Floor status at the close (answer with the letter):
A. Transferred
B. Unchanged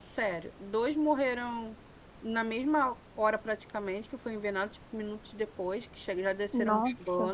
B